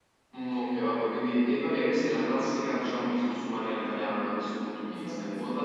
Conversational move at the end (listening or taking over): listening